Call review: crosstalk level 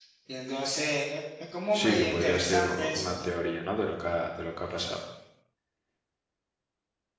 present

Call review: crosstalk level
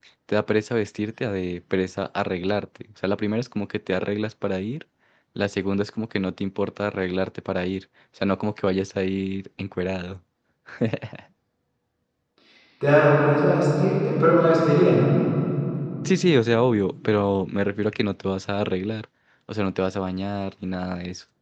none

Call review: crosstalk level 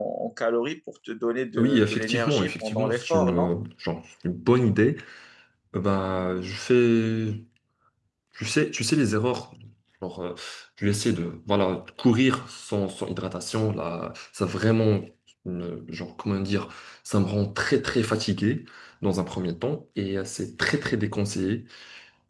present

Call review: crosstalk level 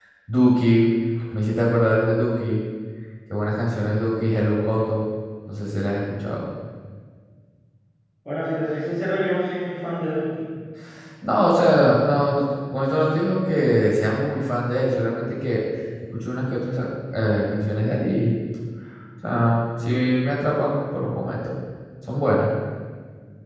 none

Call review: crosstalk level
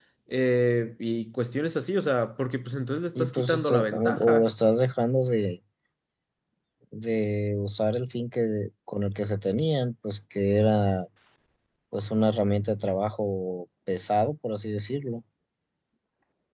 present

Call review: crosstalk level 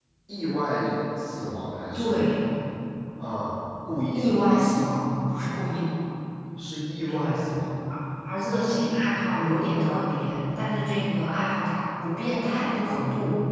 present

